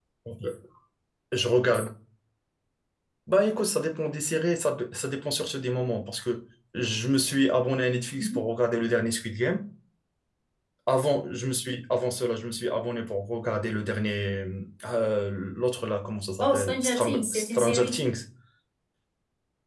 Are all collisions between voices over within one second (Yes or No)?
No